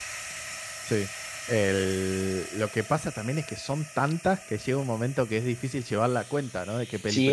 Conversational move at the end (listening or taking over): taking over